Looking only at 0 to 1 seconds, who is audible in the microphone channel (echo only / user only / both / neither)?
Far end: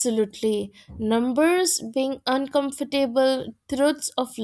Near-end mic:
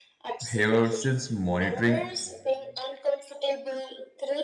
both